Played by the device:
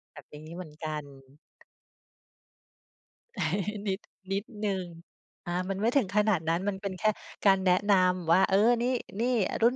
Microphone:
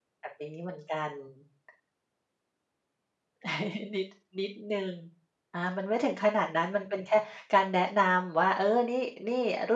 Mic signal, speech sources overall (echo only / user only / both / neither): echo only